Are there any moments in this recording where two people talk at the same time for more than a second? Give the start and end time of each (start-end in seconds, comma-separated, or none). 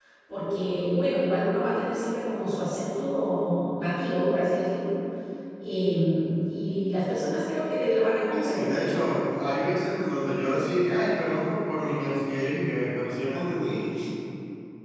none